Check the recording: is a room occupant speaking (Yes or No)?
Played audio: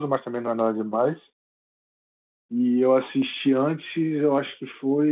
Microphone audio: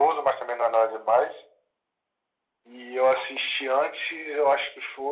No